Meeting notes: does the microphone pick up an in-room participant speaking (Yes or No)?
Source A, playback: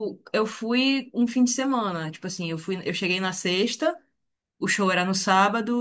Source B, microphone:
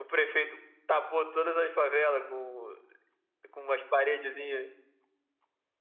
Yes